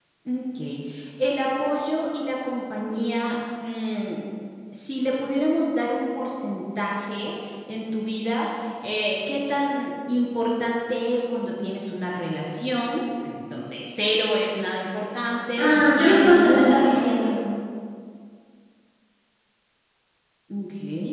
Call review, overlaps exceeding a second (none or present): present